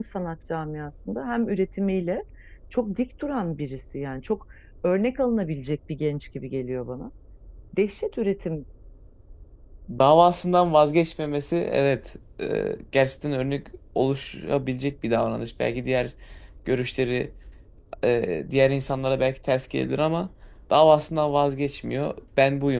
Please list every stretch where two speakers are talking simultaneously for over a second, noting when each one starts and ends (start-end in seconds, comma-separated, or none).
none